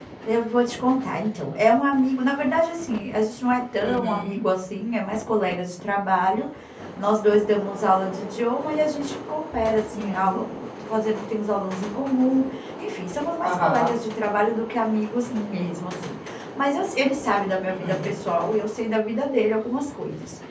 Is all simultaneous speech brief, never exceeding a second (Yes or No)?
Yes